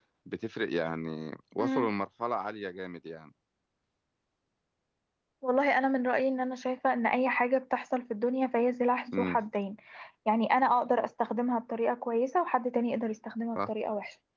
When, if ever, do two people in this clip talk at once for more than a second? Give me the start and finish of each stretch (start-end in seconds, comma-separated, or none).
none